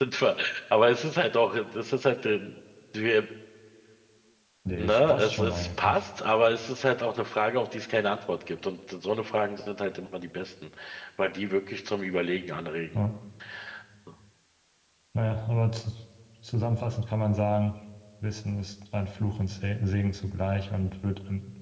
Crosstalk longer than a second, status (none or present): present